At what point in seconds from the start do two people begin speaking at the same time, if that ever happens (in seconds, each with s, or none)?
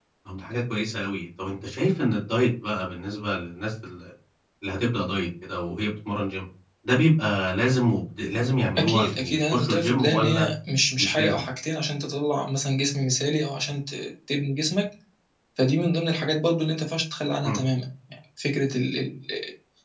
8.8 s